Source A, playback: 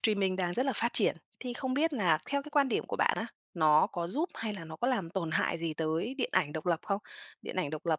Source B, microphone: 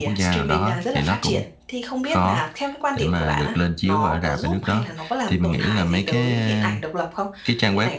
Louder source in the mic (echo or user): user